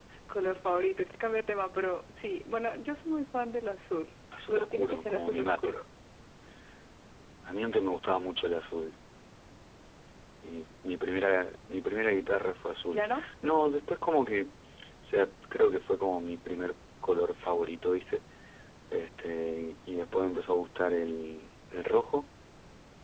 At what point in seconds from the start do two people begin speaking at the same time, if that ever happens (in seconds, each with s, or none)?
4.5 s